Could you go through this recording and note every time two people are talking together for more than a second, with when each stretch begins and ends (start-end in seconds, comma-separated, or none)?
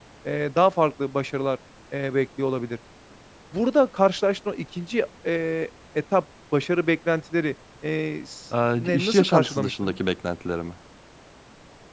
8.8-10.0